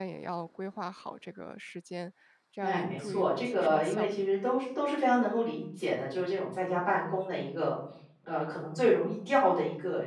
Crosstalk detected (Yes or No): Yes